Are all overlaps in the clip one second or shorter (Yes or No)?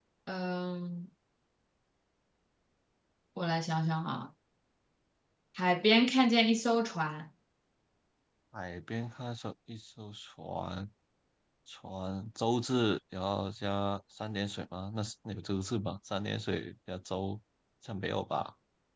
Yes